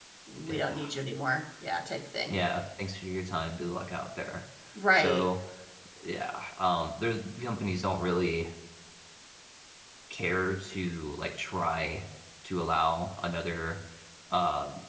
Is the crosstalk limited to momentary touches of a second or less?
Yes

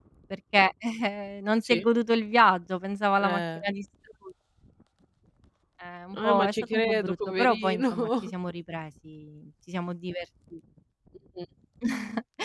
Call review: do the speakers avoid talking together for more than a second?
No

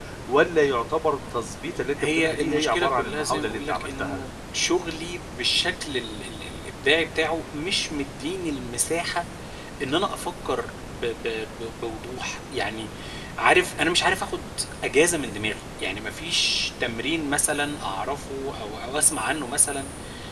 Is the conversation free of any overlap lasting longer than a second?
No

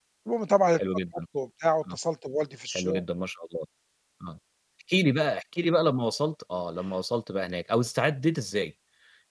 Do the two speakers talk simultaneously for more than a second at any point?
No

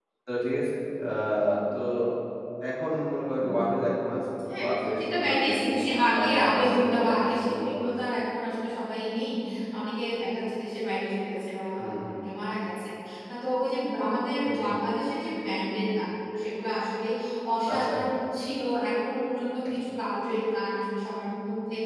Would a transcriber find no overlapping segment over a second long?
No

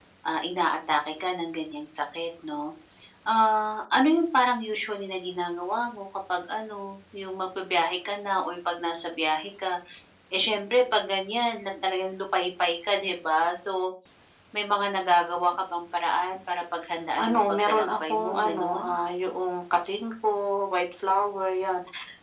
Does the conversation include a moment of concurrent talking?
Yes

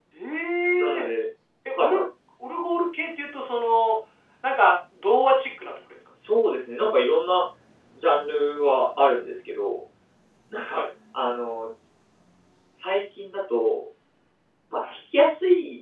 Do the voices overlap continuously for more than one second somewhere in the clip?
No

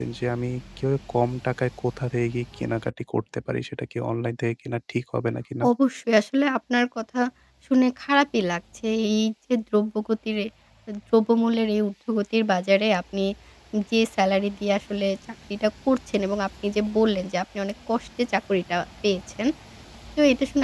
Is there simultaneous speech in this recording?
No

